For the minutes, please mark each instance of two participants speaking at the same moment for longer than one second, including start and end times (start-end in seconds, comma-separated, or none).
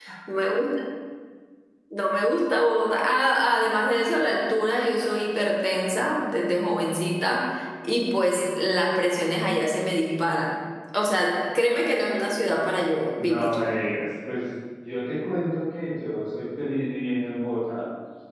none